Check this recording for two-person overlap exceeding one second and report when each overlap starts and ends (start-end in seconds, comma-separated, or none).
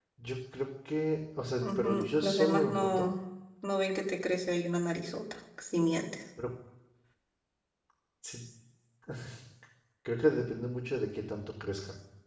1.6-3.1